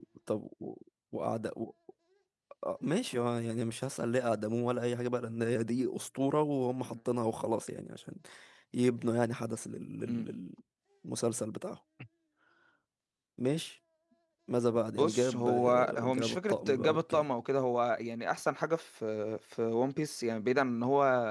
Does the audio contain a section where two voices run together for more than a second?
Yes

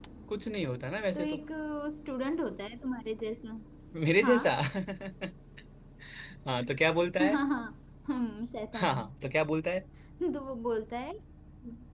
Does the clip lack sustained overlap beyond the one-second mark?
Yes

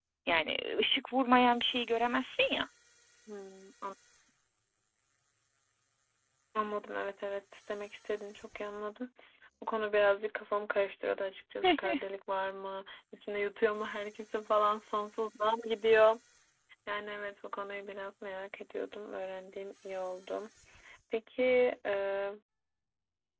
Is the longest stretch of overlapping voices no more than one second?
Yes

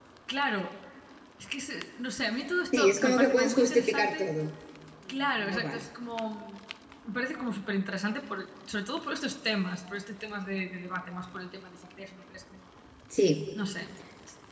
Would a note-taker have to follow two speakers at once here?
Yes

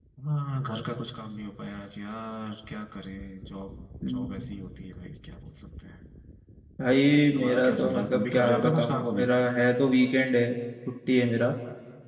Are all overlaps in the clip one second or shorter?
No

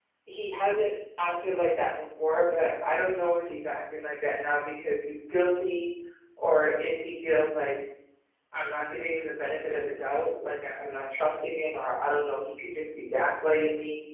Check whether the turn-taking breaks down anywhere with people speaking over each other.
No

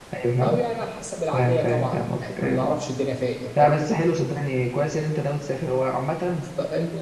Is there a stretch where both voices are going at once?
Yes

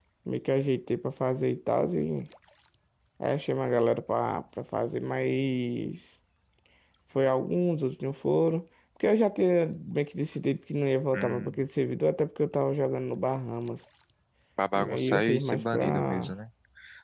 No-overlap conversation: No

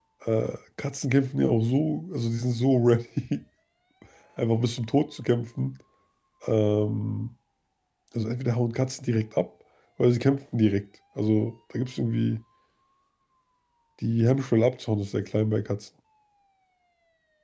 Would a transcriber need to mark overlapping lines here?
No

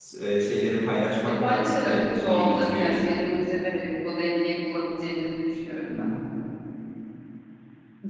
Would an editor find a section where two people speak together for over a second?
Yes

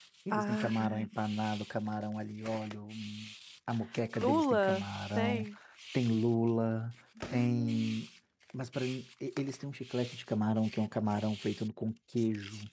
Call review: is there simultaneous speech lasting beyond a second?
Yes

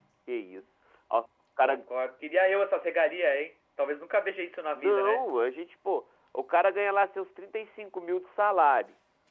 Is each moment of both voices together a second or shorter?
Yes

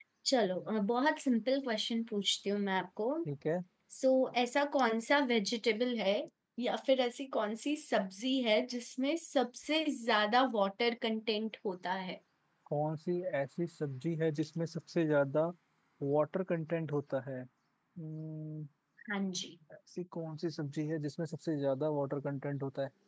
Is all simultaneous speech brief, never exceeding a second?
Yes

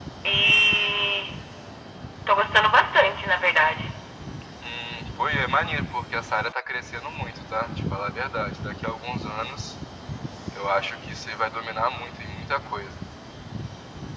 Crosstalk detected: No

